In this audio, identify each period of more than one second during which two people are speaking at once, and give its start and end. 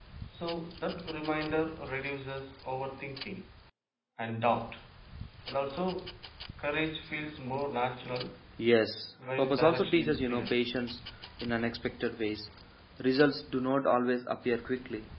9.4-10.6

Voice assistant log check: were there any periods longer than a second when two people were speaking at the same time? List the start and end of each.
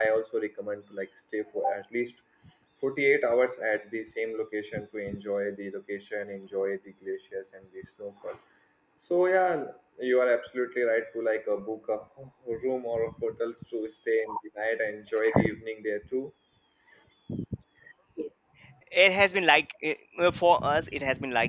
none

